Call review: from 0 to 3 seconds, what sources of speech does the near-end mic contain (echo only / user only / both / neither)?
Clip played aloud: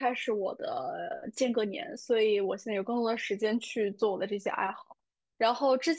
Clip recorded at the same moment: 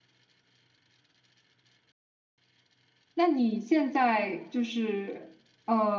neither